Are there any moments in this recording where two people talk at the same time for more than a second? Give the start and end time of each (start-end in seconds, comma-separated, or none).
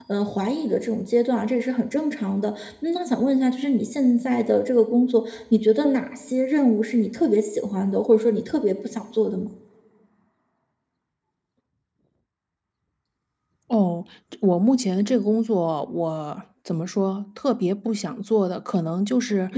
none